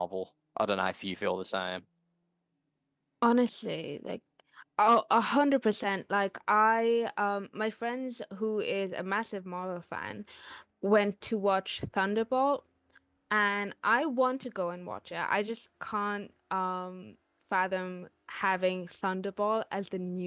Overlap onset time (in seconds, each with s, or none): none